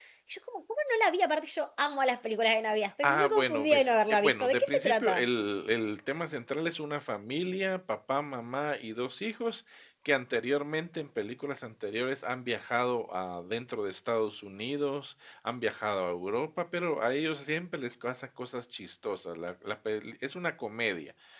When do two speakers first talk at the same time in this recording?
3.0 s

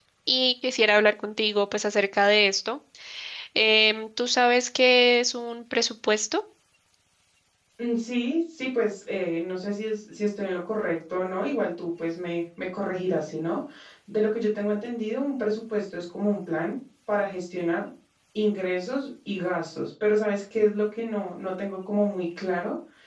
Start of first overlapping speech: none

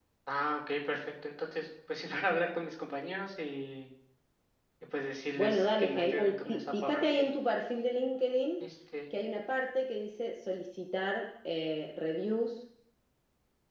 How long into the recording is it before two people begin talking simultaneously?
5.4 s

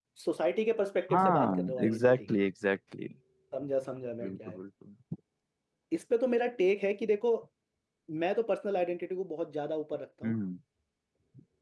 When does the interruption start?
1.1 s

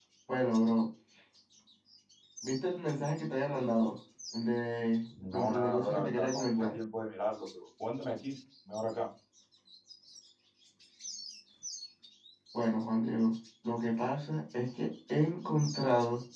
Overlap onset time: 5.1 s

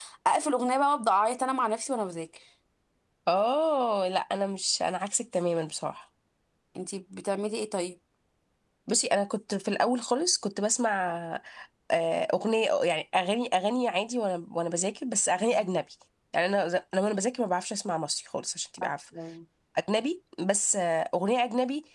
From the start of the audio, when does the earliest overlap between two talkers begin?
none

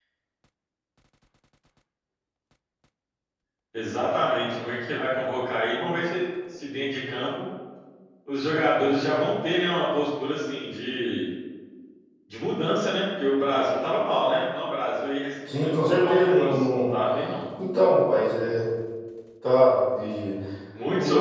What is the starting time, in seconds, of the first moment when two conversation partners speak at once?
15.5 s

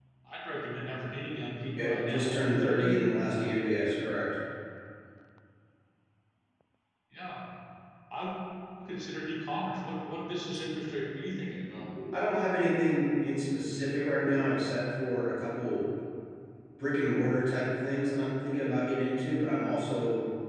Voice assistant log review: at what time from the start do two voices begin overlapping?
1.8 s

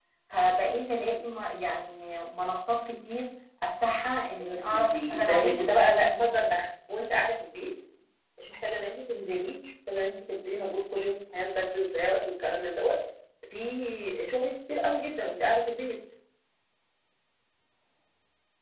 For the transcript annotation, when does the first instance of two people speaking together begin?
4.4 s

